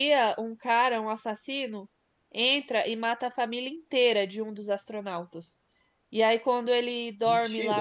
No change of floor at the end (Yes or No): Yes